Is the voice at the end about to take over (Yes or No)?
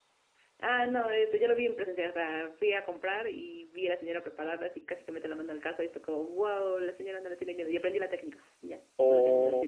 Yes